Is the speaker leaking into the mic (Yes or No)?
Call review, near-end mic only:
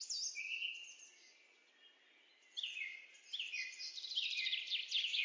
No